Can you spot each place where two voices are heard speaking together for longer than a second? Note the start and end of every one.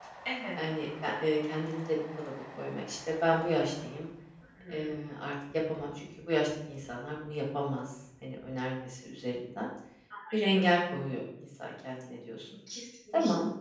none

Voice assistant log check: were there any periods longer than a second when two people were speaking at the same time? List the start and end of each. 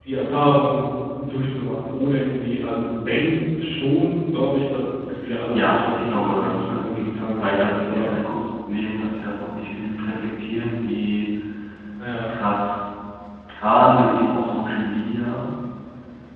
5.5-8.1

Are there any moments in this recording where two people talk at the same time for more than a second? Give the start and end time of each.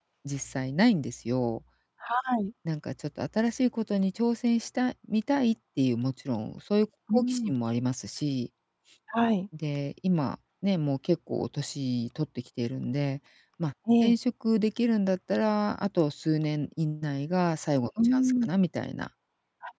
none

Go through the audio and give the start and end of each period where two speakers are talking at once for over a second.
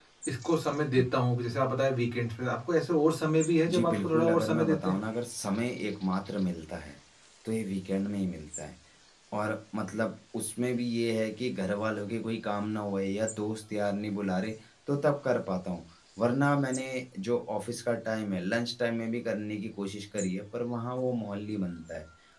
3.7-5.0

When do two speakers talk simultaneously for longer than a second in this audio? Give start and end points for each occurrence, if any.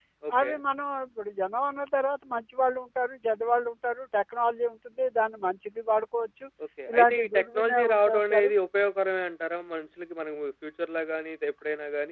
6.9-8.5

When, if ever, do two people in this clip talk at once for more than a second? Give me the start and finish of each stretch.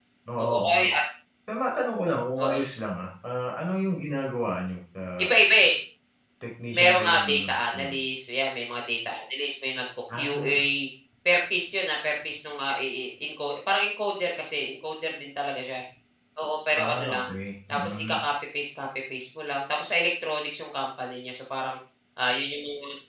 6.8-8.0

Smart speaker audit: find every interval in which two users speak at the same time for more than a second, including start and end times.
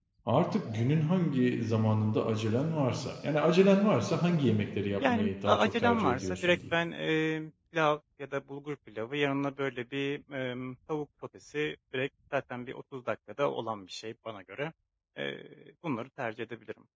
5.0-6.7

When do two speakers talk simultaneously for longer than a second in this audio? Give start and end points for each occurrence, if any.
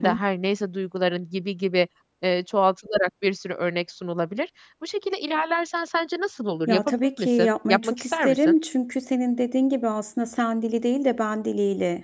6.7-8.5

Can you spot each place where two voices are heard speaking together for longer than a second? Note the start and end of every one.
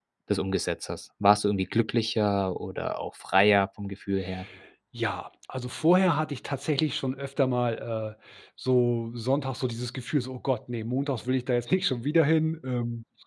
none

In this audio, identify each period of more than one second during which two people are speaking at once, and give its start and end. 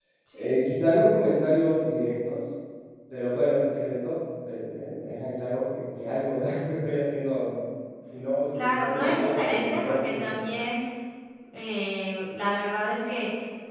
8.5-10.3

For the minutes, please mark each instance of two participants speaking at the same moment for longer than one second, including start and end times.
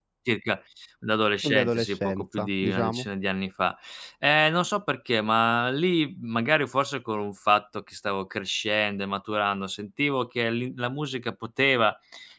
1.4-3.1

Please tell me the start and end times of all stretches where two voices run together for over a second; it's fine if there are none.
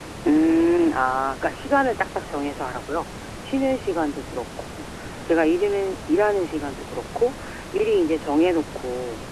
none

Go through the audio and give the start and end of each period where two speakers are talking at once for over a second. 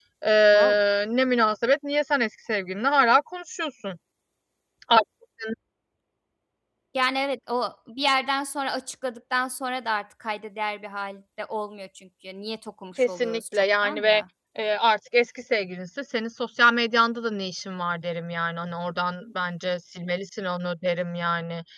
13.0-14.2

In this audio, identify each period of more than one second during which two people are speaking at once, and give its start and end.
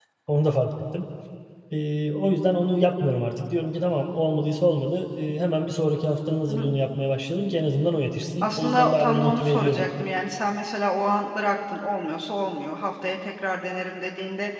8.4-9.9

